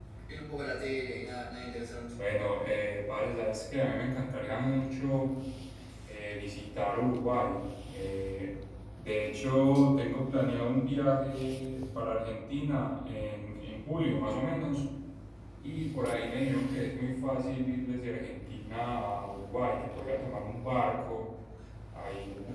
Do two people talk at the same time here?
No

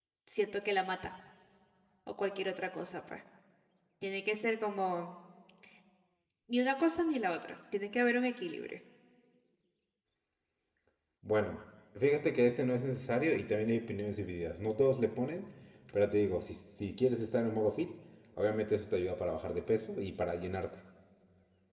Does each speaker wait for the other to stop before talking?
Yes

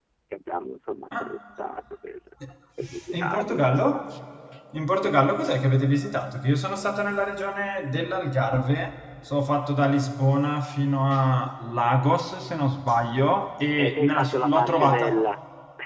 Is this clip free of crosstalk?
No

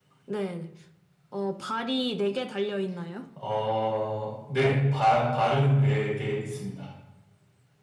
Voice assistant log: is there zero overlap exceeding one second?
Yes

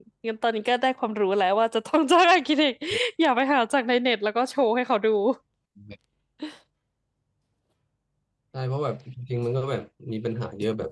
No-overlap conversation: Yes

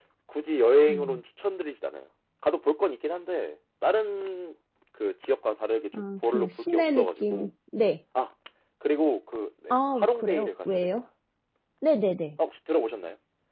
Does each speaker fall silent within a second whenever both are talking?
No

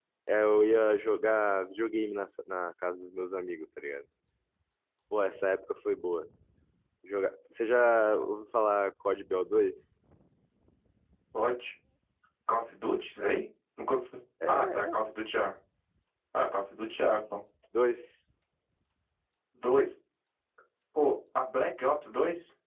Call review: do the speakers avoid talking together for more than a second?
Yes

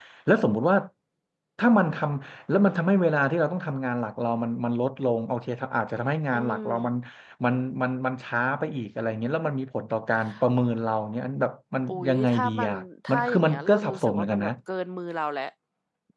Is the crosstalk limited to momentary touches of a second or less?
No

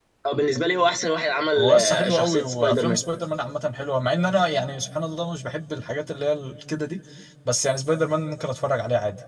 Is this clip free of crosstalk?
No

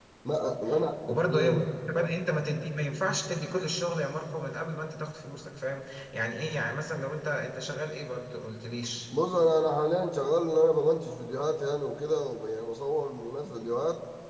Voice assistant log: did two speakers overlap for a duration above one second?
No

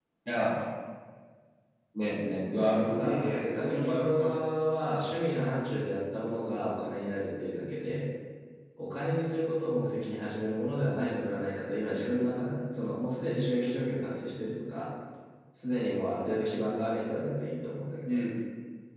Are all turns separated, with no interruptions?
No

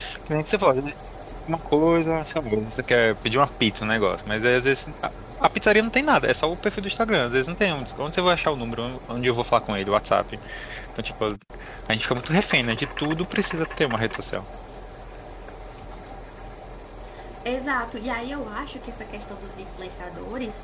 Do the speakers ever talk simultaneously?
No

